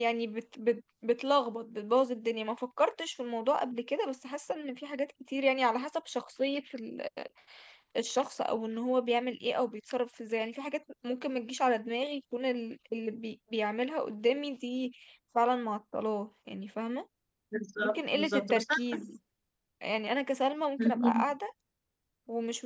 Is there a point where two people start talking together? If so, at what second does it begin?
17.8 s

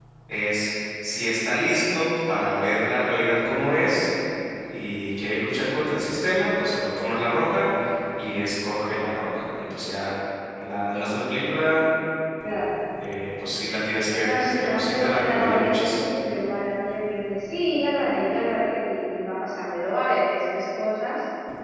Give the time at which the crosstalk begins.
14.2 s

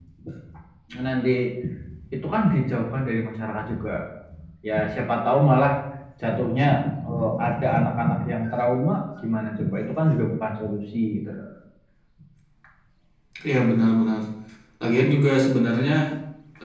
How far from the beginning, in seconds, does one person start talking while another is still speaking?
none

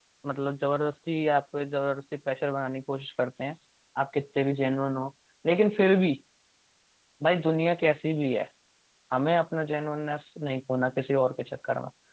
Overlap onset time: none

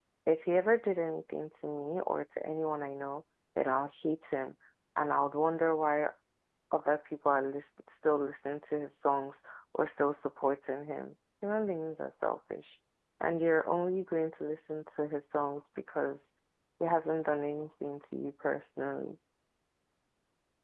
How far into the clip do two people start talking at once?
none

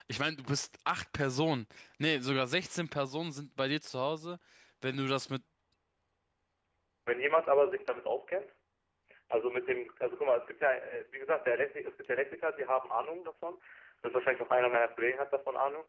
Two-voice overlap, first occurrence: none

